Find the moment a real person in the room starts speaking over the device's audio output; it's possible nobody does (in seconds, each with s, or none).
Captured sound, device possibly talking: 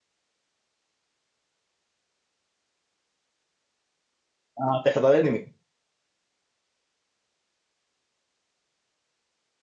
4.6 s